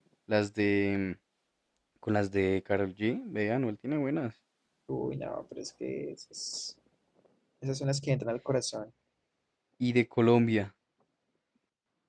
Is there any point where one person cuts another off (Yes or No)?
No